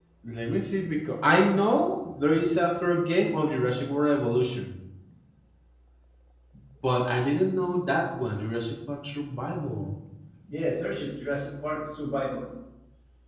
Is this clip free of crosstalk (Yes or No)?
Yes